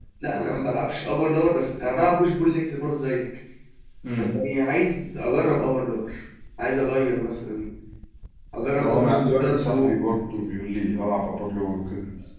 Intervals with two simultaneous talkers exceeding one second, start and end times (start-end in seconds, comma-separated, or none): 8.8-10.5